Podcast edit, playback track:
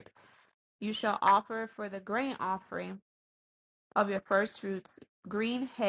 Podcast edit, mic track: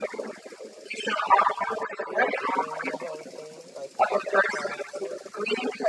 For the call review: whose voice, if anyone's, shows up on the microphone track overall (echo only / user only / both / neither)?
both